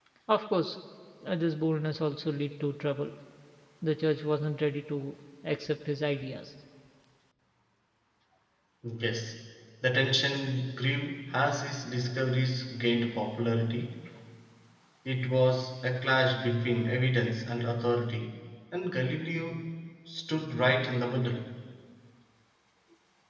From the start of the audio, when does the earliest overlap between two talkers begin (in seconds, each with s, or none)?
none